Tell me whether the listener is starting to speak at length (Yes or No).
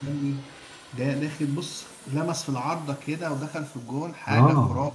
Yes